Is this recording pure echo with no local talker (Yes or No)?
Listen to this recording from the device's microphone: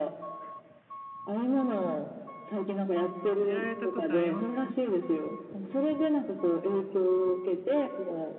No